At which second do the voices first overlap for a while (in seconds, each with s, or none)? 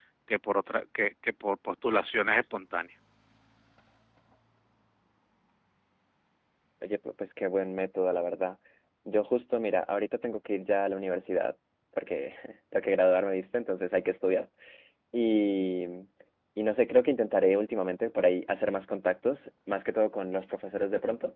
none